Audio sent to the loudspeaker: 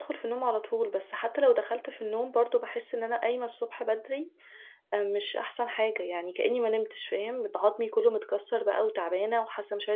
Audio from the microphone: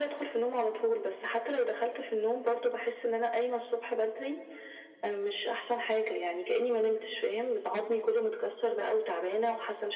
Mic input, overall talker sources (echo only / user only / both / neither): echo only